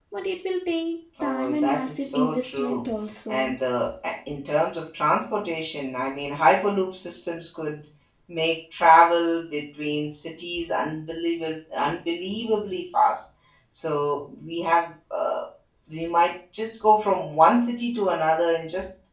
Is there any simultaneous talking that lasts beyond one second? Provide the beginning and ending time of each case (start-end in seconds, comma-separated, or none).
1.2-2.9